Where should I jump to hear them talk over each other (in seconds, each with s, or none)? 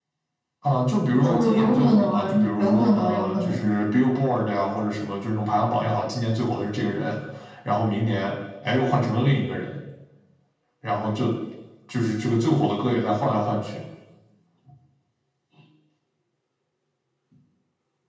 1.2 s